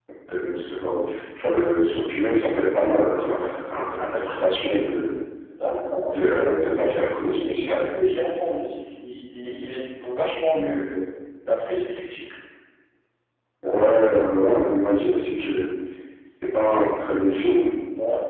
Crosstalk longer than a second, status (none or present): none